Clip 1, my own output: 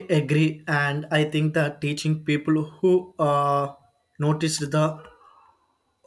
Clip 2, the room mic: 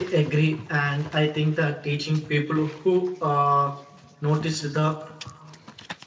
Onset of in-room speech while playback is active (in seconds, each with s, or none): none